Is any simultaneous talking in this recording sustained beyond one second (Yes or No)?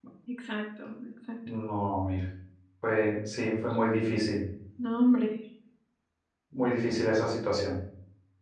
No